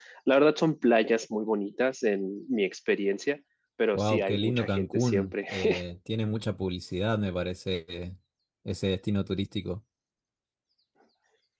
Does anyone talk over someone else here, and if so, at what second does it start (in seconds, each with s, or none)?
4.0 s